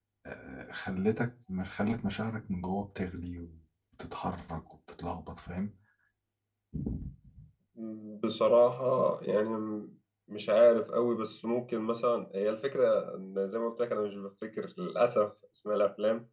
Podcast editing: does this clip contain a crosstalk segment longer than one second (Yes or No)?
No